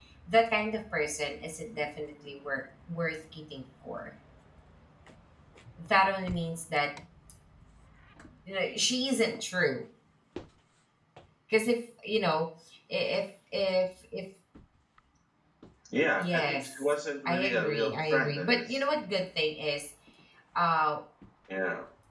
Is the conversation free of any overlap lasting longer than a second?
No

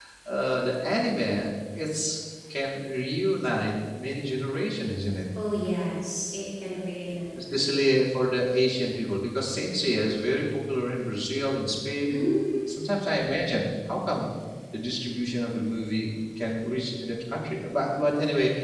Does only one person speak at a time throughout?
Yes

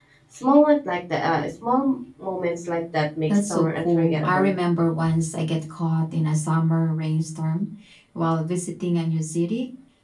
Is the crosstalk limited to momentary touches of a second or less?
No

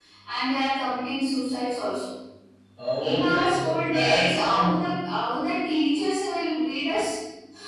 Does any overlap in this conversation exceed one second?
Yes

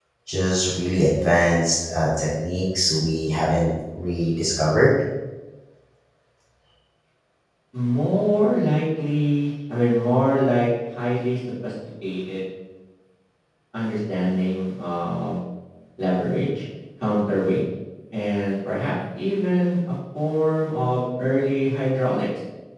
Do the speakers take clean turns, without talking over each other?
Yes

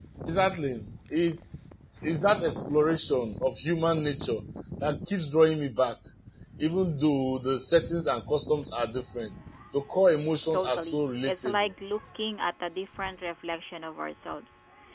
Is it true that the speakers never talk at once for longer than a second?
No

